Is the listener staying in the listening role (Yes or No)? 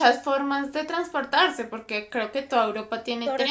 No